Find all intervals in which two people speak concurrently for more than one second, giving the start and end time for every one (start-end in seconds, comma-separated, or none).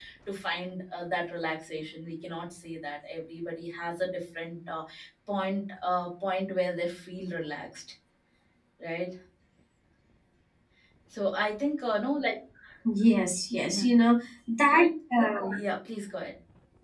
none